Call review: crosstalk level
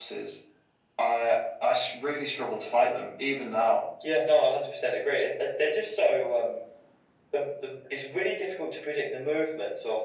none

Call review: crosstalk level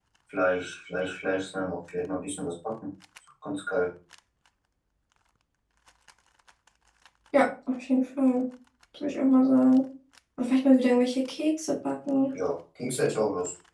none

